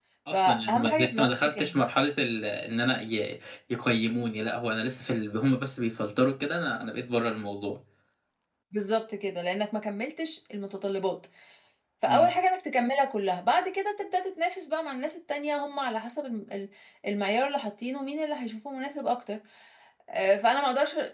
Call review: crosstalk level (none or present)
present